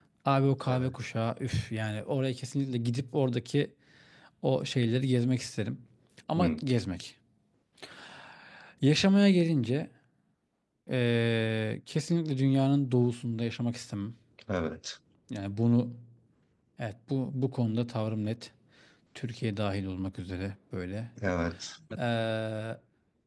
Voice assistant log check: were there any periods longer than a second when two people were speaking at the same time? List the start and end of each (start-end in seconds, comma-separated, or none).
none